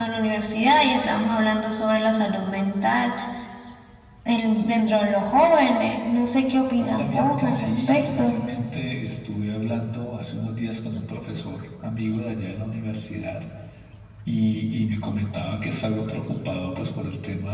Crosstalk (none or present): present